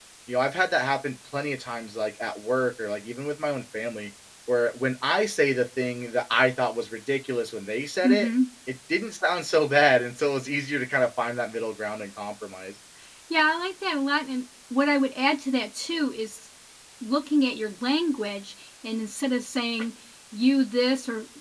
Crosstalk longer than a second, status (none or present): none